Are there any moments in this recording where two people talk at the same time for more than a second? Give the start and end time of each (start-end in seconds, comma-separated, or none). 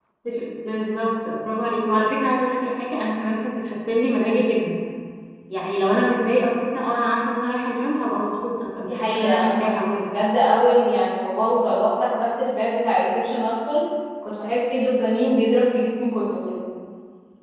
8.8-10.1